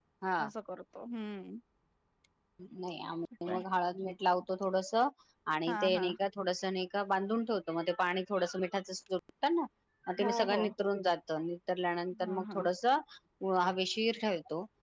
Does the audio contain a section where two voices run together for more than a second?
No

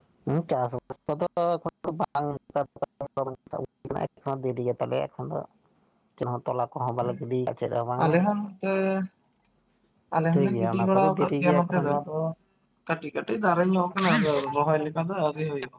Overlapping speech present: Yes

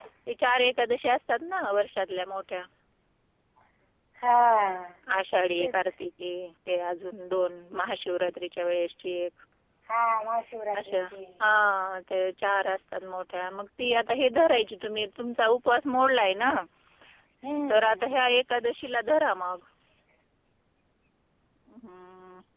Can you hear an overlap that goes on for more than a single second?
No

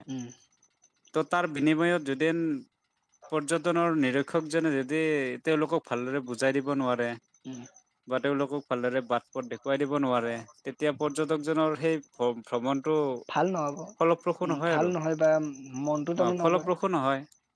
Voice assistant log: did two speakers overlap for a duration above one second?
No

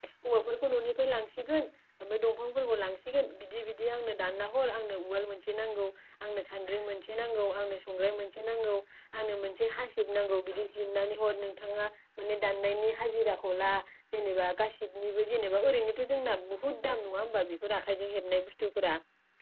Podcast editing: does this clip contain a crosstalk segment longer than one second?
No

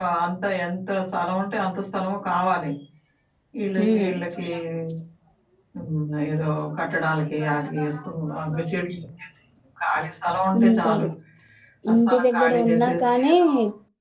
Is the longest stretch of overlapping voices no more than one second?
No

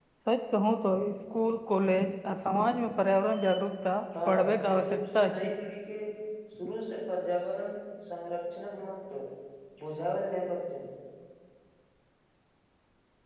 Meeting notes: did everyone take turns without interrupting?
No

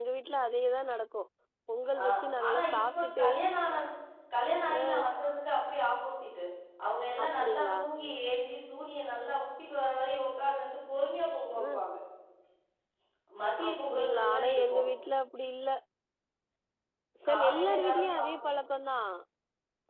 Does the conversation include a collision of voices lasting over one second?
Yes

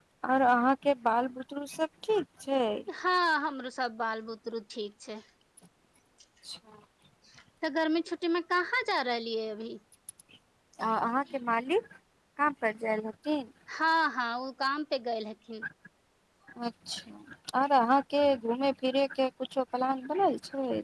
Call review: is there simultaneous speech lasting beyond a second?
No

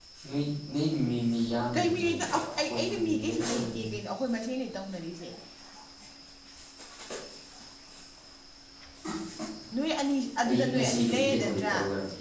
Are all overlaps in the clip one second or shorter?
No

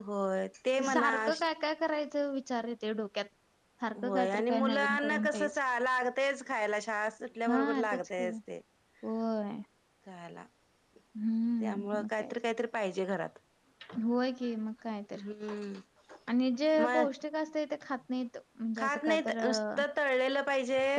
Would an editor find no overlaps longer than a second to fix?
No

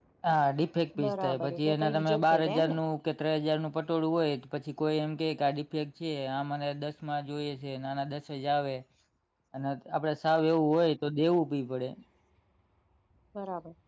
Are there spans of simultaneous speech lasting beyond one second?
Yes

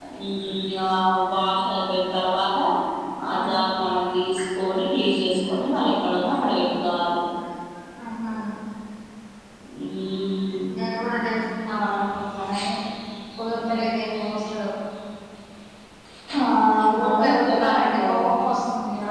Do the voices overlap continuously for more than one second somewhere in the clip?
Yes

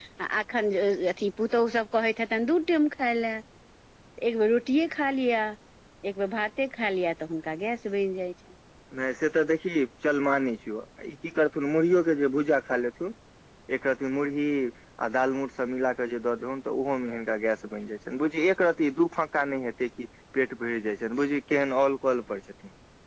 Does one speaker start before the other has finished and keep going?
No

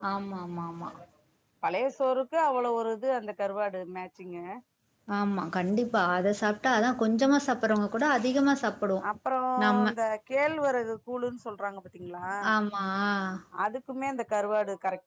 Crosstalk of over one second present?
No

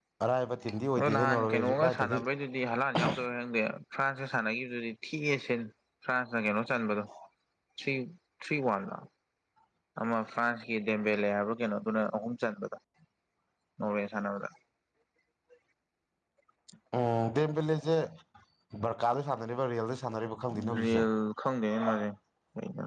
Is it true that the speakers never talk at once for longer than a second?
No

